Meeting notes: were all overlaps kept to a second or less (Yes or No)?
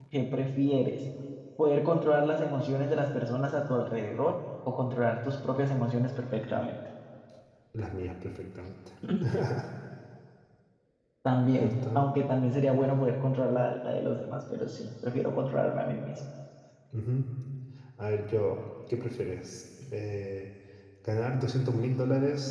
Yes